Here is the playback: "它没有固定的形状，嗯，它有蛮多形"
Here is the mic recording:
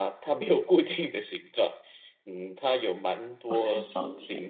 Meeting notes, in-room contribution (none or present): present